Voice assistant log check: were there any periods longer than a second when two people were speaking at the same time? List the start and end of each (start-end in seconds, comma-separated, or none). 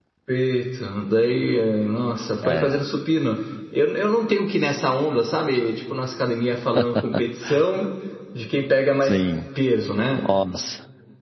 none